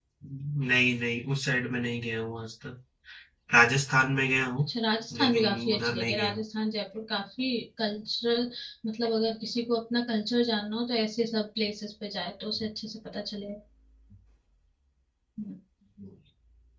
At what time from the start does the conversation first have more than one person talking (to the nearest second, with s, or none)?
5 s